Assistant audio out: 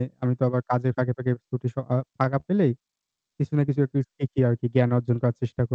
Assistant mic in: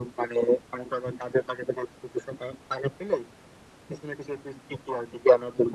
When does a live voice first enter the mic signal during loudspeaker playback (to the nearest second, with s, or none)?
none